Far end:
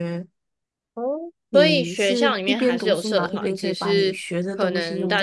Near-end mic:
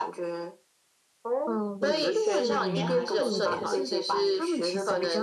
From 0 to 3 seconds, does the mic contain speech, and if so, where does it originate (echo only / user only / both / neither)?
both